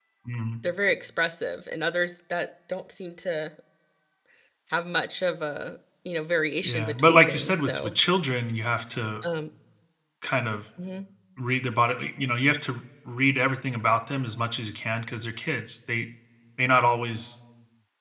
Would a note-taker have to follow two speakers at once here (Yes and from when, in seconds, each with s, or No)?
Yes, from 6.6 s